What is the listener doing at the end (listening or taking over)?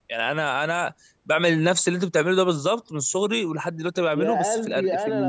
taking over